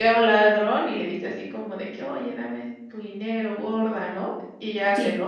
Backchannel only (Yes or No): Yes